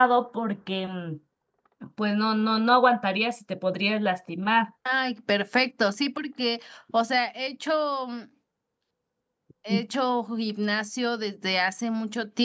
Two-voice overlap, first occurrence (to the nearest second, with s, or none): none